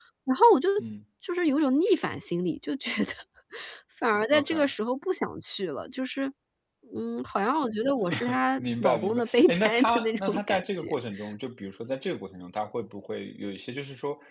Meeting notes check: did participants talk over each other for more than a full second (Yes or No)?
Yes